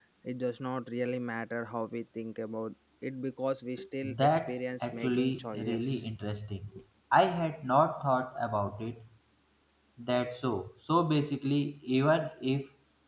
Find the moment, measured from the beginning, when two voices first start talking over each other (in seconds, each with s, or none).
4.0 s